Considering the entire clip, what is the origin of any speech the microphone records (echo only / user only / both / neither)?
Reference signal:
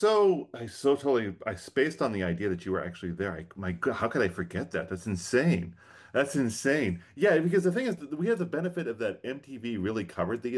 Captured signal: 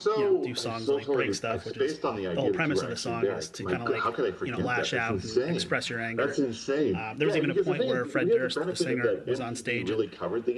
both